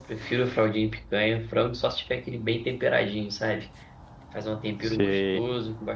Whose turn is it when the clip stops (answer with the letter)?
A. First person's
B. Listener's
A